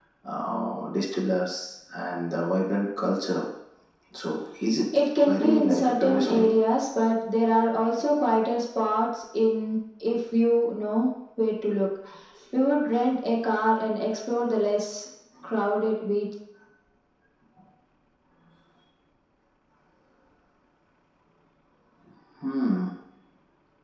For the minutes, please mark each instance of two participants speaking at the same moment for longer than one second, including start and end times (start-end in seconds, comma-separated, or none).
5.2-6.5